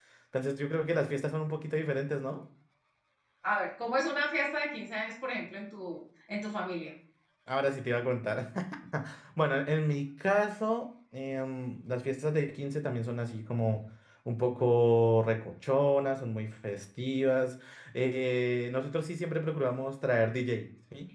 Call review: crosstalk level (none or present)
none